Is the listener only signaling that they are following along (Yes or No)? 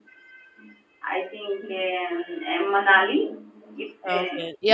No